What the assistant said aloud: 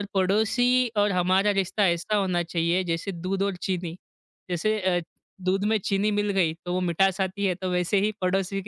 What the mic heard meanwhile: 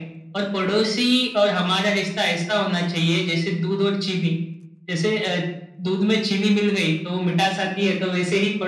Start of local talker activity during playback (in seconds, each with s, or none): none